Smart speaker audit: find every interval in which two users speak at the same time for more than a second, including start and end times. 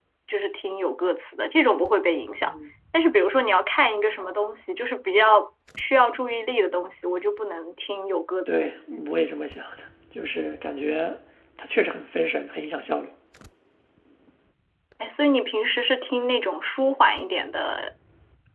none

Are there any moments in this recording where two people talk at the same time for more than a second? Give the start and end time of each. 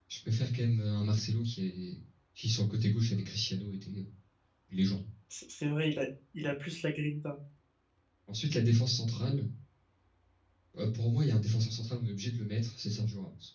none

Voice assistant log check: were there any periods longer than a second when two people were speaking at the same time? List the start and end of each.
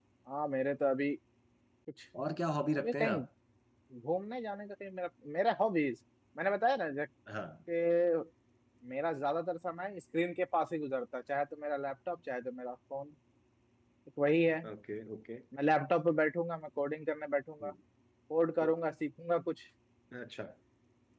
none

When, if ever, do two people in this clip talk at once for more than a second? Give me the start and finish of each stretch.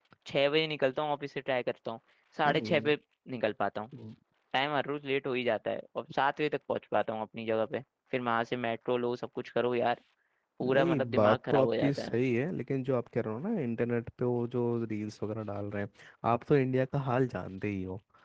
10.7-12.2

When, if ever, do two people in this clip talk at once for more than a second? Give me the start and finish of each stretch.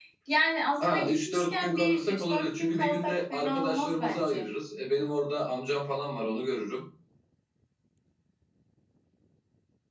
0.9-4.5

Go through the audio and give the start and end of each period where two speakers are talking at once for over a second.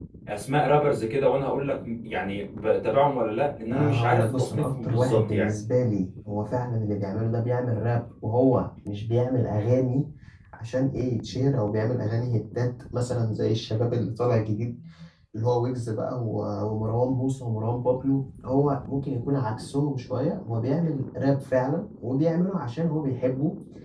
3.7-5.5

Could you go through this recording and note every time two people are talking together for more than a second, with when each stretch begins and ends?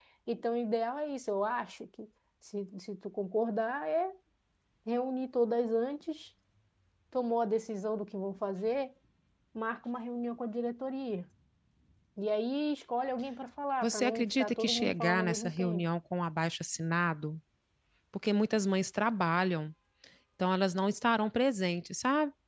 13.8-15.8

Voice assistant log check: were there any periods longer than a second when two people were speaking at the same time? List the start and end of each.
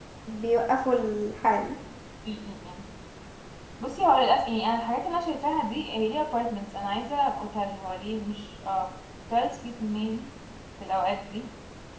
none

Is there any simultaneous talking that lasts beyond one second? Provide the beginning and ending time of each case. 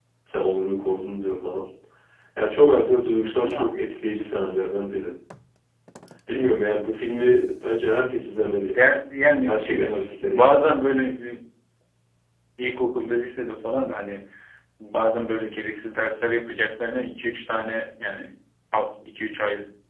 9.5-10.7

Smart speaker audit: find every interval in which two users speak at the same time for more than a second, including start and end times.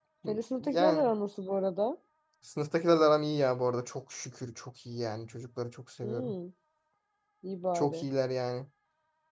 none

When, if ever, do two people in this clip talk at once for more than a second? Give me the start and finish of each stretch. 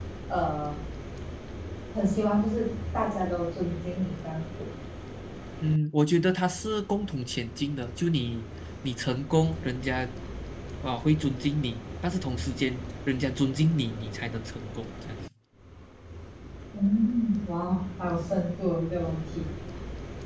none

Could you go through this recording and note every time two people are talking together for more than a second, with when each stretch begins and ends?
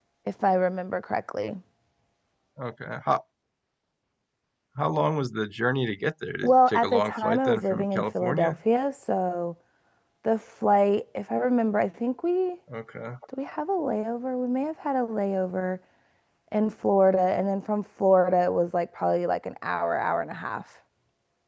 6.4-8.6

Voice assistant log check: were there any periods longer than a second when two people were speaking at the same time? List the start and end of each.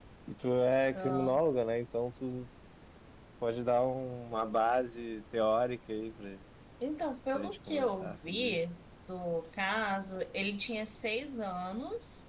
7.3-8.6

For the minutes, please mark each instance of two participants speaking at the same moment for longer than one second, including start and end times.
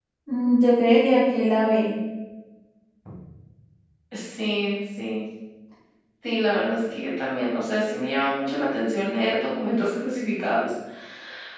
none

